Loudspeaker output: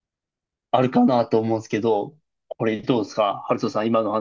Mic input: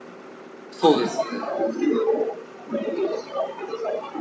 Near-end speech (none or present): present